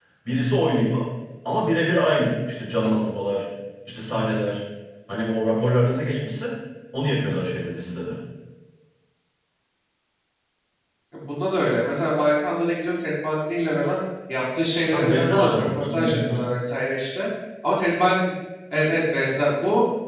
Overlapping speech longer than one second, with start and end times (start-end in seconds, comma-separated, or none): 14.9-16.4